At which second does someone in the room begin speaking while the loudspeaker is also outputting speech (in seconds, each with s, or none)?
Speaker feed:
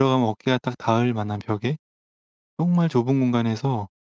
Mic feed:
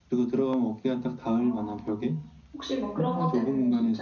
1.4 s